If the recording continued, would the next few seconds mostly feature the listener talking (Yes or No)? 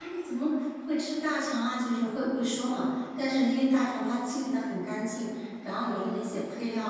No